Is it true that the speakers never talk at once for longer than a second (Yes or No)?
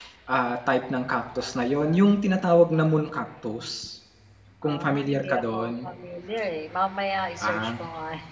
No